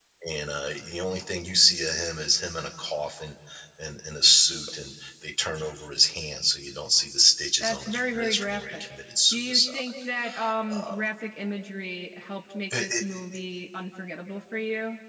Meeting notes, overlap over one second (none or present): present